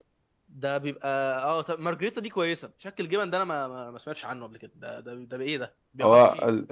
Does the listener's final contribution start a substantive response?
Yes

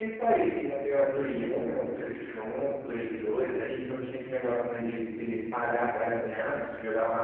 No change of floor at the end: Yes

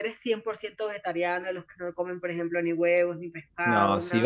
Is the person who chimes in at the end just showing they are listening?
No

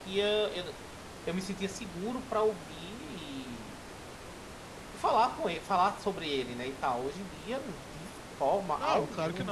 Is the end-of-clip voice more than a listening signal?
Yes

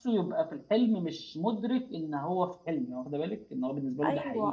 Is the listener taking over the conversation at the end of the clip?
Yes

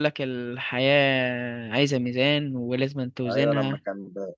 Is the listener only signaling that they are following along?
No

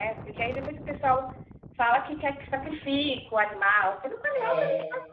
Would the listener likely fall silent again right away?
Yes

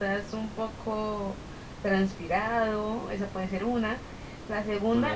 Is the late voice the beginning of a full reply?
No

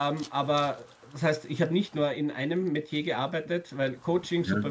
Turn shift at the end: No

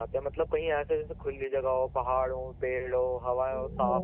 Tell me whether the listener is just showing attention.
No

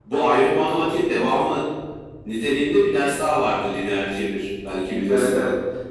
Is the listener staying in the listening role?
No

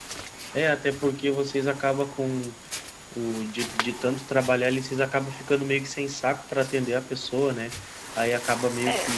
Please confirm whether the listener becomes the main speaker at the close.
No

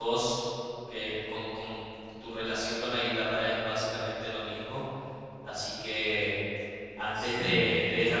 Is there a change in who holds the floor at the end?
No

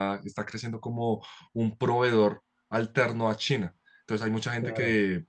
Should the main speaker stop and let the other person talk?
No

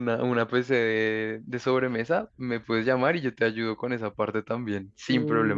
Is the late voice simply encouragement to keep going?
No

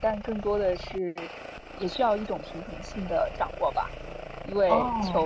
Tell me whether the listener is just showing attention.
Yes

